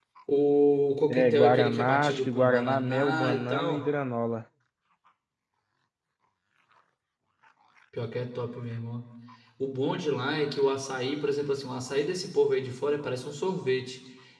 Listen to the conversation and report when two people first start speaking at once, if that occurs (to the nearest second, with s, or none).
1 s